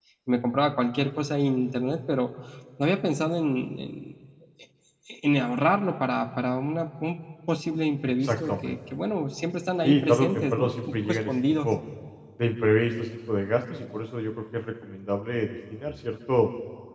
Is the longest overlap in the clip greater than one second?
Yes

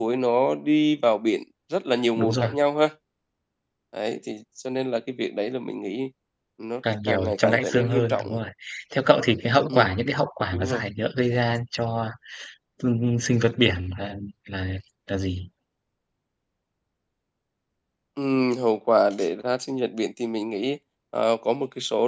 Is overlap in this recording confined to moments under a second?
No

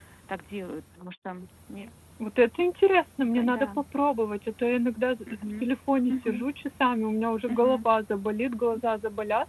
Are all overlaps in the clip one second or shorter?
Yes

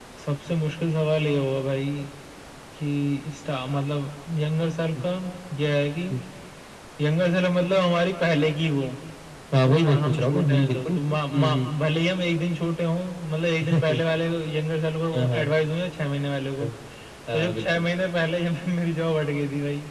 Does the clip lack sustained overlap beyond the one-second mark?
No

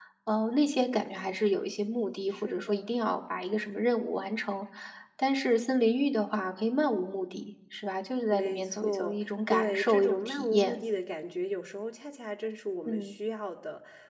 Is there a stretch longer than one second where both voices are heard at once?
Yes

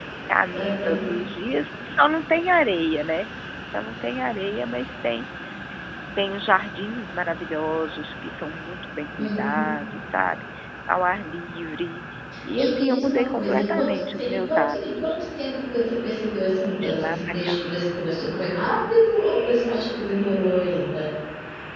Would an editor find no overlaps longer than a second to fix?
No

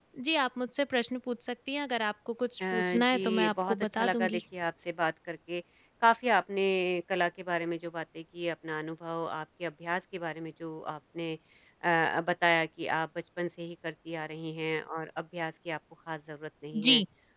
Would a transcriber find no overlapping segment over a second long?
No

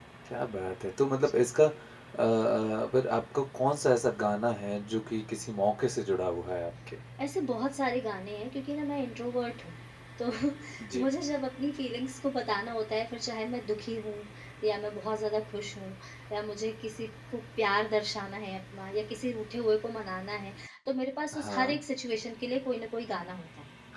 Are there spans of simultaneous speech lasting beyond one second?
No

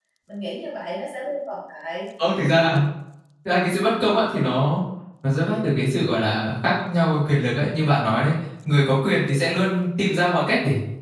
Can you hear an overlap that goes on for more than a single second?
No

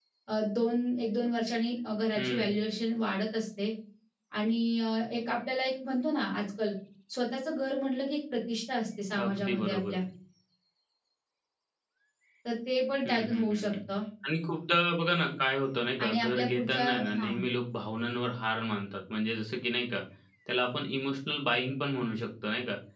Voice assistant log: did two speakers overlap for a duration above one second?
Yes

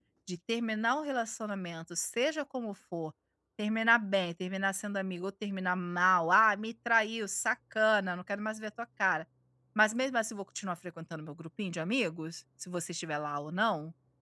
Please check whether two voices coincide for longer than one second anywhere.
No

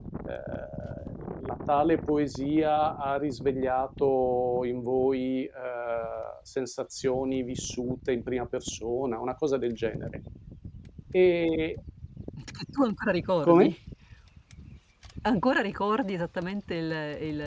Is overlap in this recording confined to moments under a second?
Yes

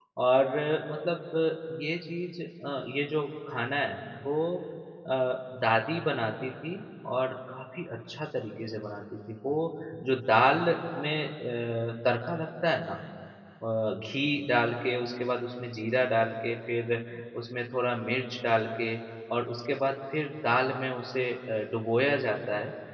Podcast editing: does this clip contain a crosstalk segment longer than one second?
No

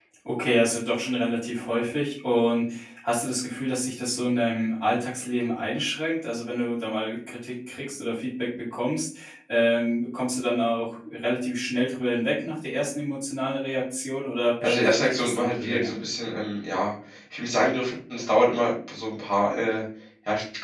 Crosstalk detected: Yes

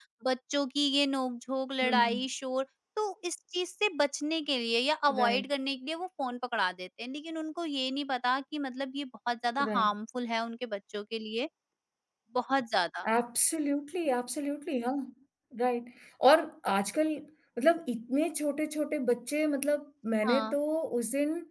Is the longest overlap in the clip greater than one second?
No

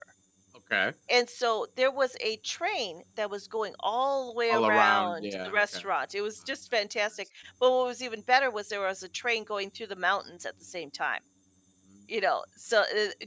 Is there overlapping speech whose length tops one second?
Yes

